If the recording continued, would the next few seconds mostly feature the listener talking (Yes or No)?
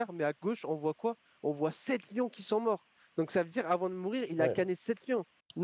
No